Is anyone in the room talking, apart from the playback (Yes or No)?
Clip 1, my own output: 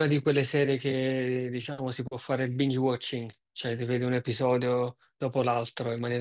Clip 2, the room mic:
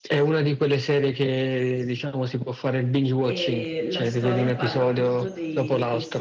Yes